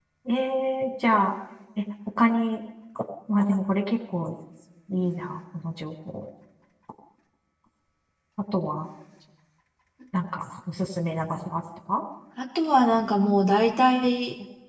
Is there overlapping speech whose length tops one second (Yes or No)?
No